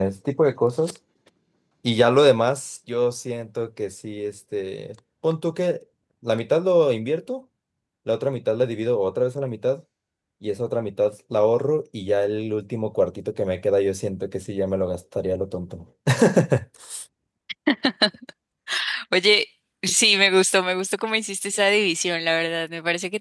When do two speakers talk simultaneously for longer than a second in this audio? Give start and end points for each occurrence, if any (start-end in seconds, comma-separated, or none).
none